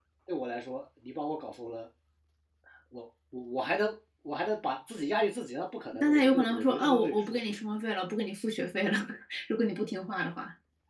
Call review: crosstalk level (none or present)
present